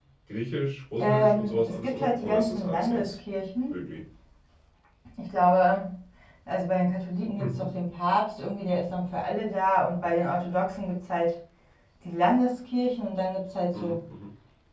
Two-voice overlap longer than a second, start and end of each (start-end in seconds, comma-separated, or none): 1.0-3.2